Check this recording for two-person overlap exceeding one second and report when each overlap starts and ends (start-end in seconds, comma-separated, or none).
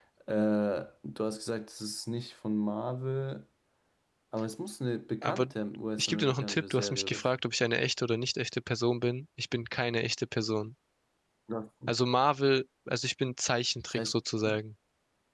6.0-7.3